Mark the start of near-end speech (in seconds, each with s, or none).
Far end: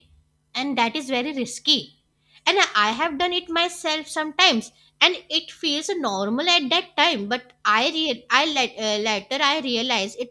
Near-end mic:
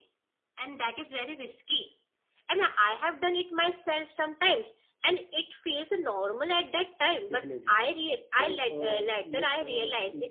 7.3 s